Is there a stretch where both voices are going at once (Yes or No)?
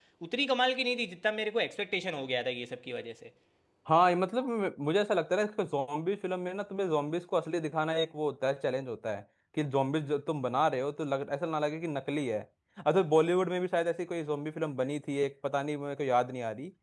No